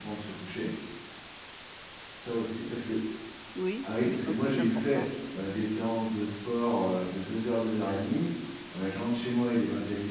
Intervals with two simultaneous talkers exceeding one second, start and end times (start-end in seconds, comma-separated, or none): 3.8-5.0